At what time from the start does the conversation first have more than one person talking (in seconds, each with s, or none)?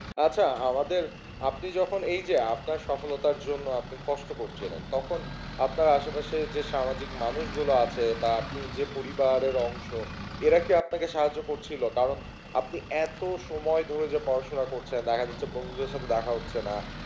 none